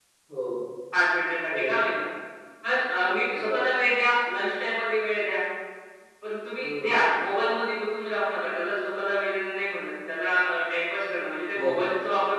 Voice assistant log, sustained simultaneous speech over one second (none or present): none